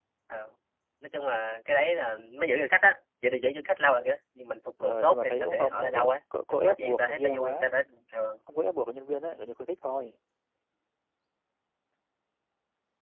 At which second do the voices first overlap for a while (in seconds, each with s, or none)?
4.8 s